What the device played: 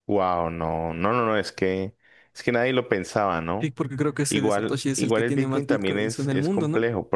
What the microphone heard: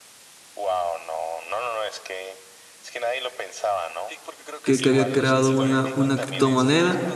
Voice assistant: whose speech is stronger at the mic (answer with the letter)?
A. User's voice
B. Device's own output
A